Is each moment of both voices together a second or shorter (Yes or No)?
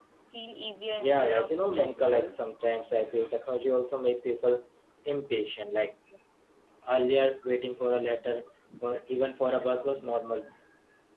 No